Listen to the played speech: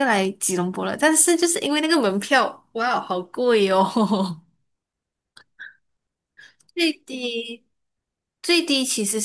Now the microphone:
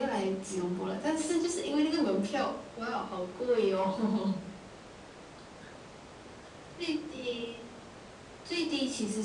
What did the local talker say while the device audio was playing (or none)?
none